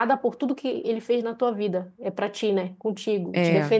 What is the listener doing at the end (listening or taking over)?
listening